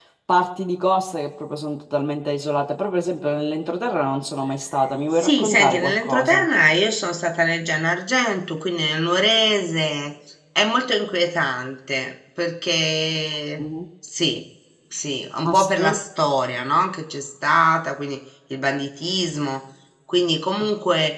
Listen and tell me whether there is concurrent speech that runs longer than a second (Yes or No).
Yes